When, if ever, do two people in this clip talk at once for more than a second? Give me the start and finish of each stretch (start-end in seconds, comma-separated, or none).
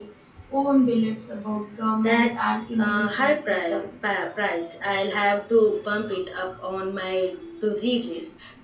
2.0-3.8